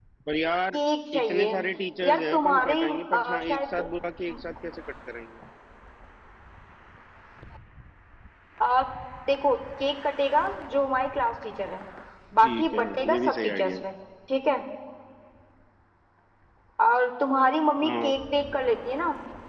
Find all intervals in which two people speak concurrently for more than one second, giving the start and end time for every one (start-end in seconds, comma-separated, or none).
2.0-3.8, 12.4-13.8